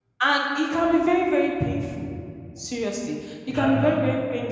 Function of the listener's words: listening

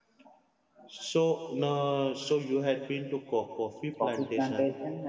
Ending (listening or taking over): taking over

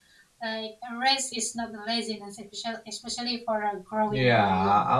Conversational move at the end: taking over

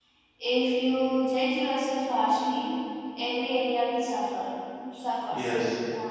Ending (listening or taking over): taking over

